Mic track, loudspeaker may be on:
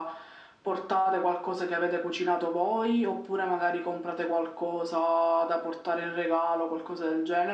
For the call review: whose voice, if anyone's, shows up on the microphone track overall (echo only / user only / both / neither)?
echo only